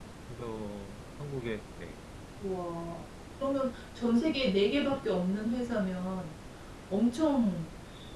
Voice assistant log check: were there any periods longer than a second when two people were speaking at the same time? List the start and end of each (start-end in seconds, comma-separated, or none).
none